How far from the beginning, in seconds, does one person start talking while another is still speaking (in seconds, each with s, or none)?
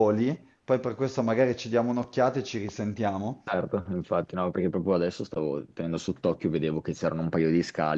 none